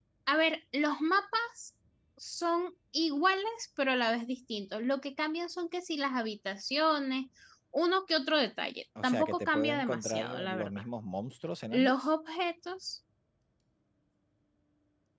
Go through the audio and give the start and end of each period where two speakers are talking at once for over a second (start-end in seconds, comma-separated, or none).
9.0-10.7